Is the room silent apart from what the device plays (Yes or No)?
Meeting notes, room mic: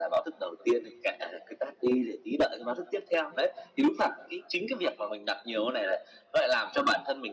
Yes